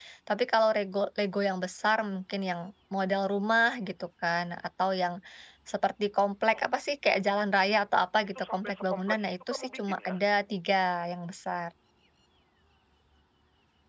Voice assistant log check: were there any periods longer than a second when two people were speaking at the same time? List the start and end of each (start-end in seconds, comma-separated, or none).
8.4-10.1